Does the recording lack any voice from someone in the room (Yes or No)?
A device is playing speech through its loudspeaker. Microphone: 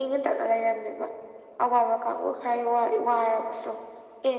Yes